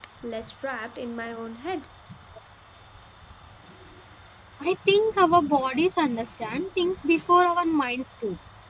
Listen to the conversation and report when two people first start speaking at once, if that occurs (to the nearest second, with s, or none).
none